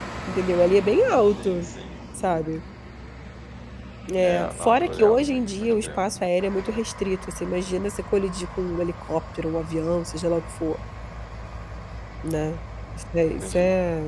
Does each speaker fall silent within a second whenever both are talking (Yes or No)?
No